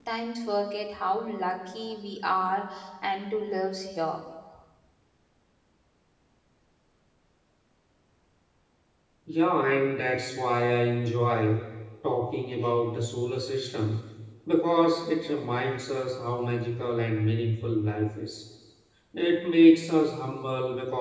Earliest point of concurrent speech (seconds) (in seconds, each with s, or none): none